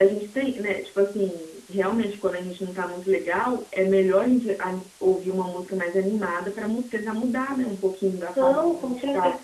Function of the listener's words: taking over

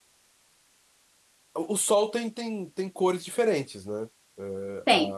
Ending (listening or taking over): listening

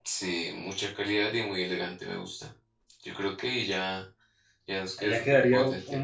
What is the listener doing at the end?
taking over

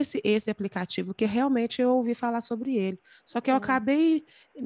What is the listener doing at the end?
listening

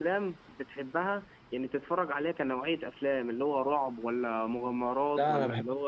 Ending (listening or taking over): taking over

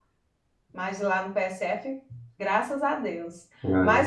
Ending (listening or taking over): listening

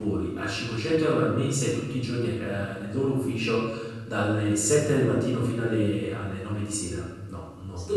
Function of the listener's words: taking over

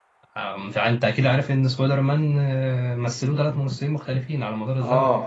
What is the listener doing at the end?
taking over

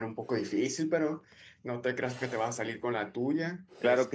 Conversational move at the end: taking over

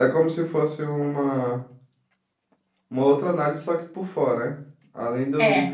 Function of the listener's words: listening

